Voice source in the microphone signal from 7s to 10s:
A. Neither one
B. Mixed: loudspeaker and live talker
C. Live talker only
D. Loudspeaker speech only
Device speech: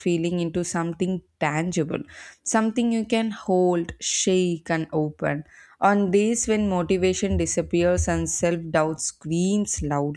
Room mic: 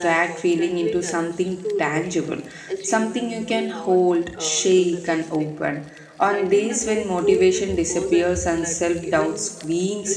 B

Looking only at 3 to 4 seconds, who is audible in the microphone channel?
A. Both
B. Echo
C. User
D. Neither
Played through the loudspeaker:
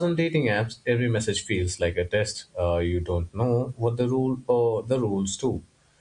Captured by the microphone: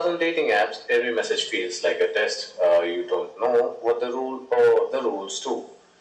B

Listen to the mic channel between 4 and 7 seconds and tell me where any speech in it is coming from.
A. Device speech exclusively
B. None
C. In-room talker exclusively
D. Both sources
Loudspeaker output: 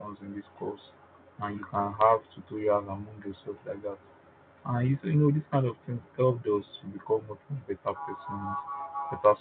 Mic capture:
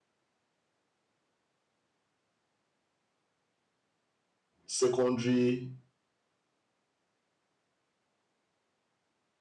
C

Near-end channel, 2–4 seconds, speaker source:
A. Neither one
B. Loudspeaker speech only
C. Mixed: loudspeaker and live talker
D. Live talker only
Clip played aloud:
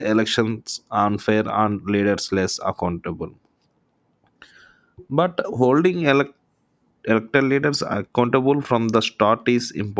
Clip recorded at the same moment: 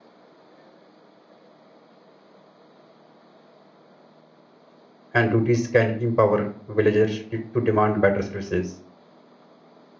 A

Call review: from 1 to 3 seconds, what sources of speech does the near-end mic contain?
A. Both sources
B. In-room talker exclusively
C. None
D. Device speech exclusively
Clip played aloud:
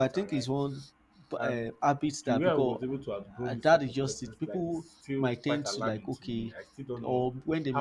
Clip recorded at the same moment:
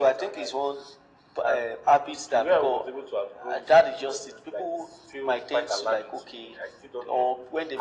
D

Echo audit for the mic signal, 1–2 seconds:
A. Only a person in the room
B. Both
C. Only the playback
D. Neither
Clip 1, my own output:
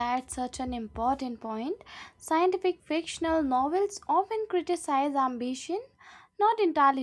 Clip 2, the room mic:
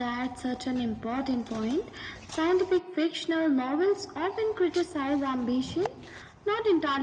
C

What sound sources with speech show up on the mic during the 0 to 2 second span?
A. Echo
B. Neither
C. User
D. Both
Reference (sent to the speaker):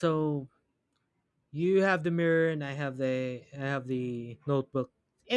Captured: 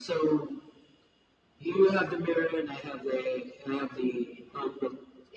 A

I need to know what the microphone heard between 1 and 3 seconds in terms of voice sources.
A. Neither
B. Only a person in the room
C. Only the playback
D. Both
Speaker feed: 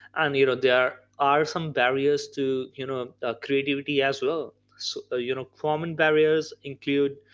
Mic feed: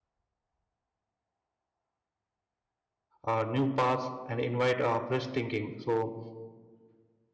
A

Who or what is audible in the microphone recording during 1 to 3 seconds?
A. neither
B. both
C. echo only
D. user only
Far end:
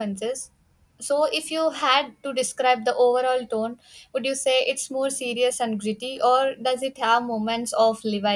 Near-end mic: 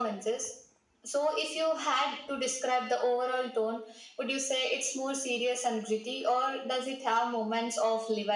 C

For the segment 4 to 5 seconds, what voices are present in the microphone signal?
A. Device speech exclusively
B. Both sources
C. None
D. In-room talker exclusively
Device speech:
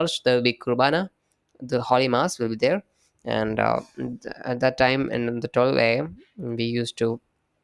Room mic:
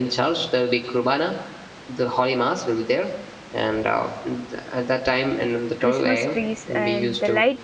A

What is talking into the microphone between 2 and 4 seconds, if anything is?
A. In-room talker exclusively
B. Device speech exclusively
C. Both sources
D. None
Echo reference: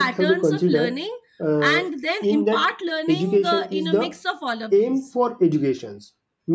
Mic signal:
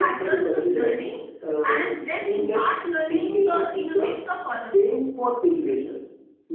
B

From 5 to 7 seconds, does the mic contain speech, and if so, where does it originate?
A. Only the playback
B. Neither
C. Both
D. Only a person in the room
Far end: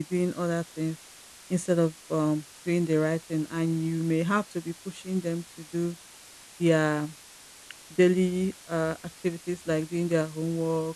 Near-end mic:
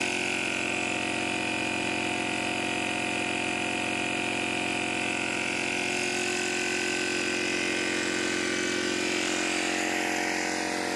B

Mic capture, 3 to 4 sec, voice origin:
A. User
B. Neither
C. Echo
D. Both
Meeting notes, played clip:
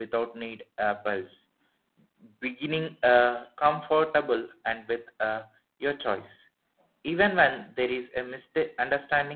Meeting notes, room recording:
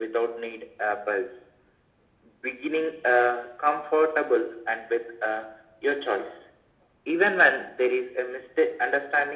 C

